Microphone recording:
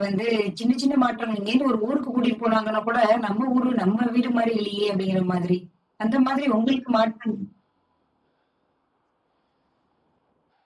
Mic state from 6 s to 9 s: echo only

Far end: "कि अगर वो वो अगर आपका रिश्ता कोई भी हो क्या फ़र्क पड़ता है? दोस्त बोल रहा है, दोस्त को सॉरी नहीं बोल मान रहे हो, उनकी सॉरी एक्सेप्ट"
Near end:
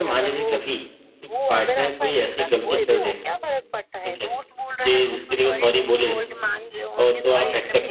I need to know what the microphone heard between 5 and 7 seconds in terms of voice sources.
both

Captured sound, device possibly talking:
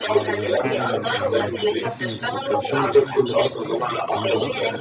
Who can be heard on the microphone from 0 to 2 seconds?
both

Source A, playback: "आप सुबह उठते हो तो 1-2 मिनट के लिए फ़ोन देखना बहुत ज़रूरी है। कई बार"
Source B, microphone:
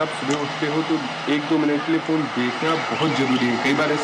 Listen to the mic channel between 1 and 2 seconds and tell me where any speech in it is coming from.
echo only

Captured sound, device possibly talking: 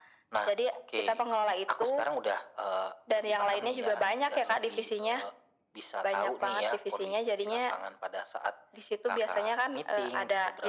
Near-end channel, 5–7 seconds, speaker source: echo only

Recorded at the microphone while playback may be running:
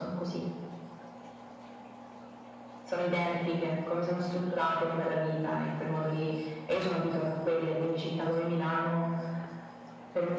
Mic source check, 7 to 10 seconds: echo only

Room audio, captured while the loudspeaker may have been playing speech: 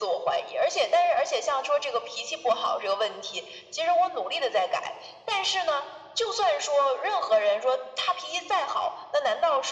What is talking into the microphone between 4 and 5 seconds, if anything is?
echo only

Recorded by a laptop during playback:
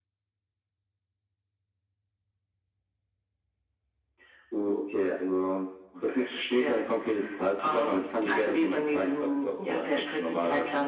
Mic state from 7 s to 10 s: echo only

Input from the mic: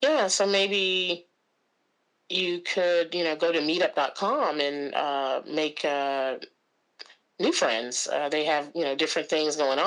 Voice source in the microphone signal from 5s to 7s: echo only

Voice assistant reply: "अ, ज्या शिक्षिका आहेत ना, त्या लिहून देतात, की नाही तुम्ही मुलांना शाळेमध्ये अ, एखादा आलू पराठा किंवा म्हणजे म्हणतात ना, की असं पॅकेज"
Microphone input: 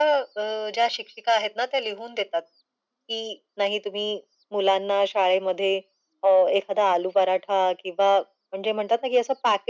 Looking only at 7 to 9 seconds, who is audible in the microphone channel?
echo only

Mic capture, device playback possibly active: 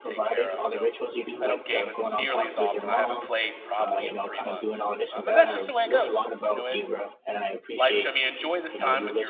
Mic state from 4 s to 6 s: both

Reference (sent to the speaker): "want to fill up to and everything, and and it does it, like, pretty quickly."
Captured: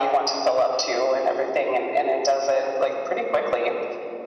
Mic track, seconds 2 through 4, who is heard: echo only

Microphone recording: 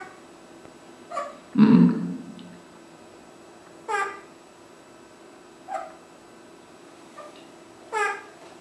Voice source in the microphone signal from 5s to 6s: neither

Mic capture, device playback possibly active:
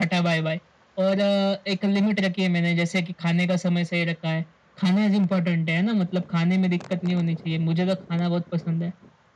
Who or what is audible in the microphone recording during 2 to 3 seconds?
echo only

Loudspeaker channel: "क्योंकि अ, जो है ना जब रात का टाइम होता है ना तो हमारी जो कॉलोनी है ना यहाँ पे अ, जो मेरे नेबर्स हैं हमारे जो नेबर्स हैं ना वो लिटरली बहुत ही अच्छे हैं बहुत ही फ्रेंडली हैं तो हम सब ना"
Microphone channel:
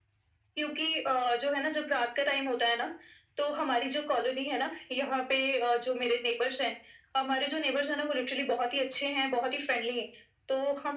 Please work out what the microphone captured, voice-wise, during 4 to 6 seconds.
echo only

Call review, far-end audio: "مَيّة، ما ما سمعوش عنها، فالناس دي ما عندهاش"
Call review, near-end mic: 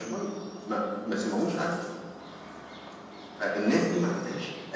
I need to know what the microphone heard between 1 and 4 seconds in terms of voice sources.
echo only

